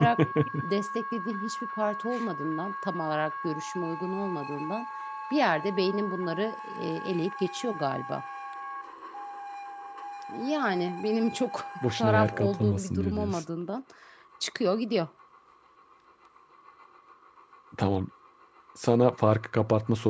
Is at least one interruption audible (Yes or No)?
Yes